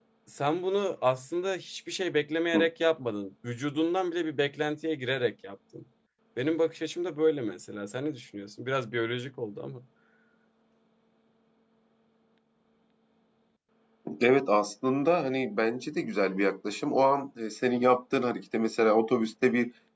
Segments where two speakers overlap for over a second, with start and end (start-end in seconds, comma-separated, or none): none